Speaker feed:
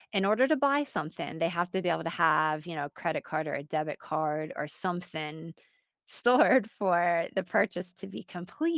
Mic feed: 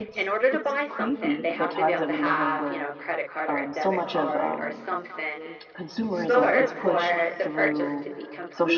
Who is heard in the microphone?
both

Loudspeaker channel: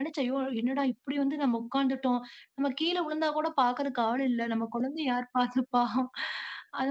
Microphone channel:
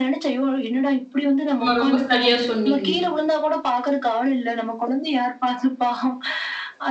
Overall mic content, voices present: both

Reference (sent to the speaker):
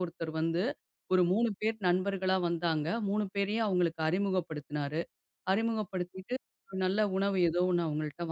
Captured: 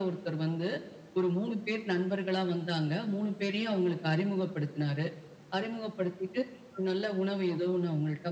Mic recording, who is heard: echo only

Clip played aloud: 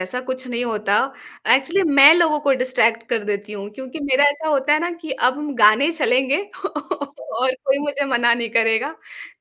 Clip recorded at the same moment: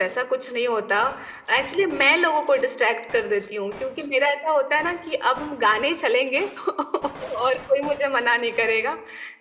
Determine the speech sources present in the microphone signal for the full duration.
echo only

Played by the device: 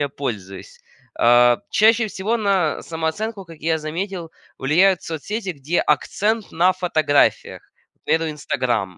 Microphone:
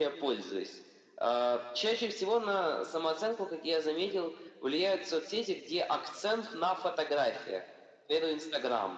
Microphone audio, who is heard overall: echo only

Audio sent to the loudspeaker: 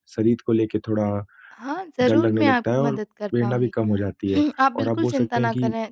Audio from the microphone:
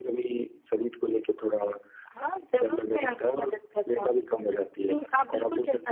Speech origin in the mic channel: echo only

